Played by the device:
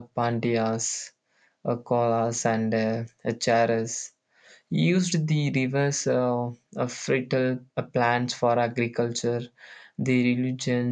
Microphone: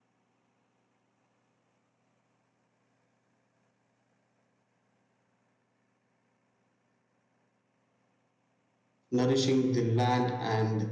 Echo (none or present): none